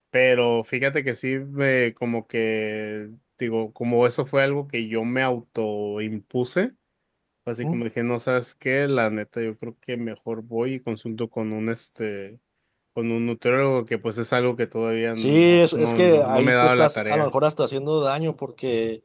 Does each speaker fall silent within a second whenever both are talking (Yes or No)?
No